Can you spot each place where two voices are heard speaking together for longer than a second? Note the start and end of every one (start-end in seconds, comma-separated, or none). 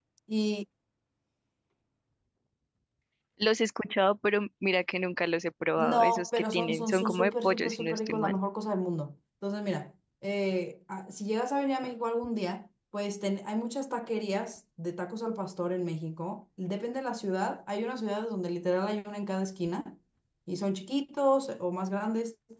5.8-8.4